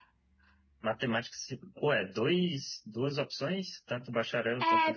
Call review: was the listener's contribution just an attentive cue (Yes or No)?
No